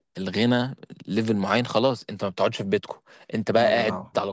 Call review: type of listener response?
listening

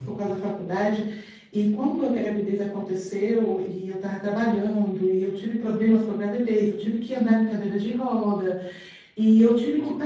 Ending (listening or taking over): listening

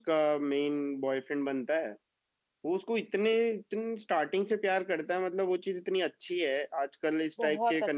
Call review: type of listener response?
listening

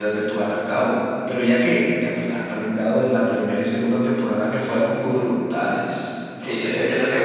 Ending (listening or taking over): taking over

